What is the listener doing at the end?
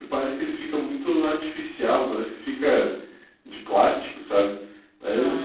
listening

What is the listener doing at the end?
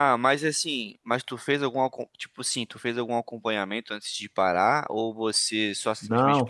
taking over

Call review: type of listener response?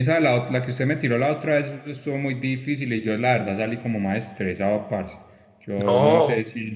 taking over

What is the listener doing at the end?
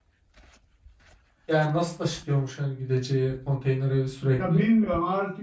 taking over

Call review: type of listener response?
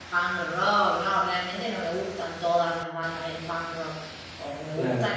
listening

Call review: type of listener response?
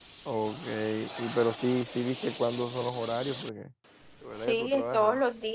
taking over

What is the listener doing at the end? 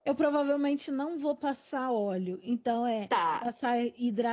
listening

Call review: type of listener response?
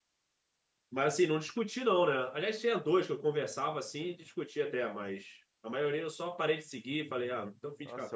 taking over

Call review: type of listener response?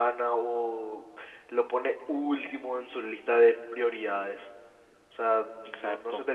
listening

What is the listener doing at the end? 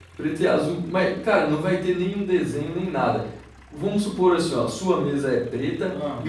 listening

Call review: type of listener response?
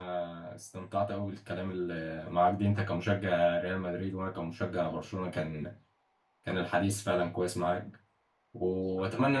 listening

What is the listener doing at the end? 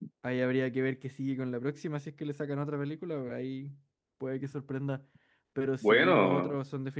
listening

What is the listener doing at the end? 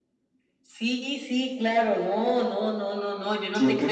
taking over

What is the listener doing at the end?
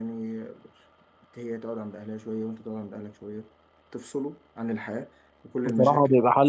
taking over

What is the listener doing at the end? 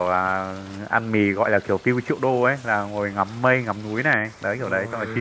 taking over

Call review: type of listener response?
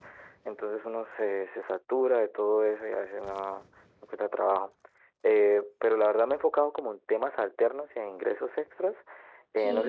listening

